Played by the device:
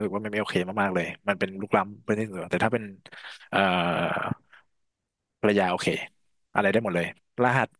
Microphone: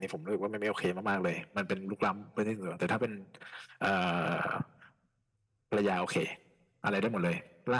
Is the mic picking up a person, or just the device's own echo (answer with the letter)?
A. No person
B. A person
A